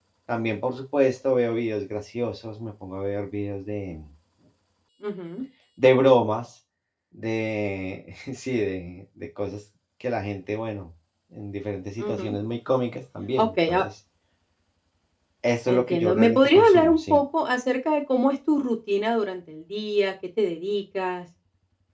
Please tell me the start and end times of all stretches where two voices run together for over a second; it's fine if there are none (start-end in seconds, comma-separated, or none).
15.7-17.2